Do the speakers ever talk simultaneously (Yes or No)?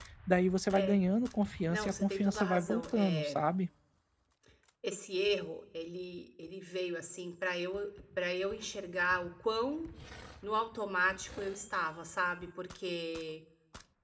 Yes